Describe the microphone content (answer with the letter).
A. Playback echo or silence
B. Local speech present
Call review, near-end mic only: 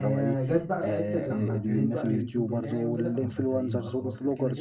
B